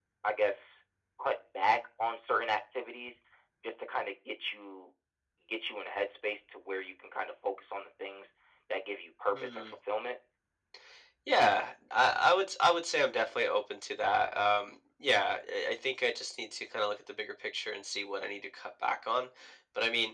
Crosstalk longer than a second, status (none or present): none